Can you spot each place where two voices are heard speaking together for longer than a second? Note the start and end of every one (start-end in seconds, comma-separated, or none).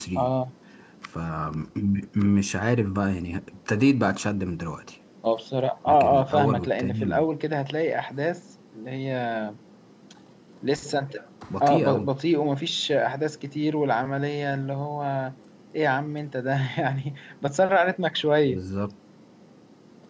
5.9-7.2